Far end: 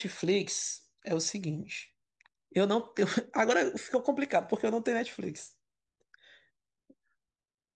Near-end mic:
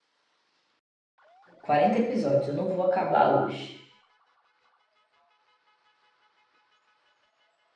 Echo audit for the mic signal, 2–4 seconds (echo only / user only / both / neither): user only